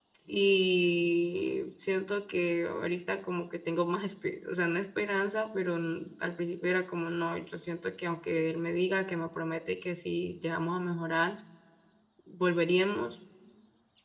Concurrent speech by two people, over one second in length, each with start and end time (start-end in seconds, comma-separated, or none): none